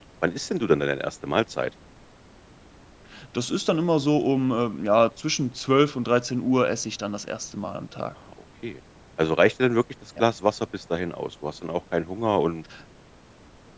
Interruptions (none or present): none